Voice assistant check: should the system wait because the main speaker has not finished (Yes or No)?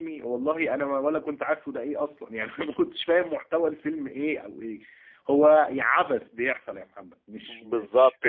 No